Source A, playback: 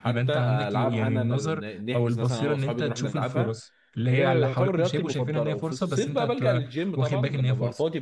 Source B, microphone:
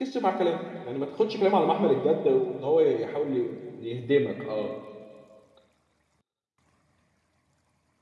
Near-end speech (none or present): present